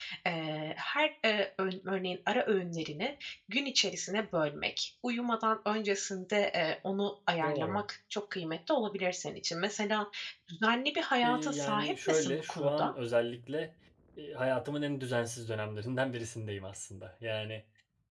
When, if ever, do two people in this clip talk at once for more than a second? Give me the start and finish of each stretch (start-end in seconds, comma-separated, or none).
11.2-12.9